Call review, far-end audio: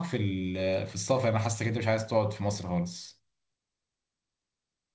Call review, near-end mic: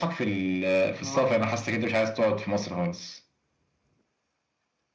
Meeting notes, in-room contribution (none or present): present